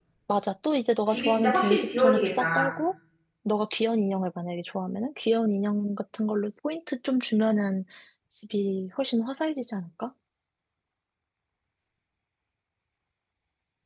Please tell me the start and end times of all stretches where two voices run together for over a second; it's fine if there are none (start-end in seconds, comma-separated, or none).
1.1-2.7